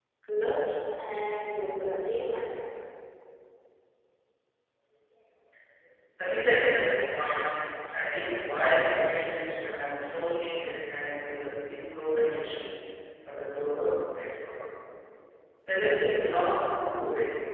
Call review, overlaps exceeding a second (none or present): none